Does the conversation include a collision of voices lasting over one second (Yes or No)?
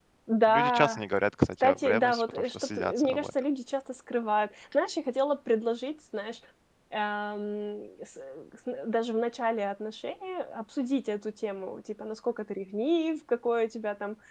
Yes